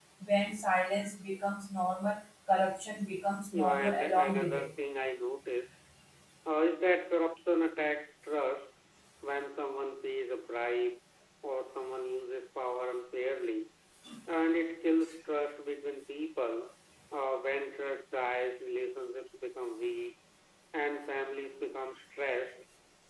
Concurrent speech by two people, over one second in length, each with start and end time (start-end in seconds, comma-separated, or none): 3.5-4.7